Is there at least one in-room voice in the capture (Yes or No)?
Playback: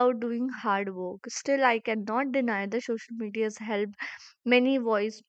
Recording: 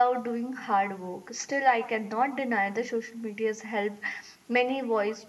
No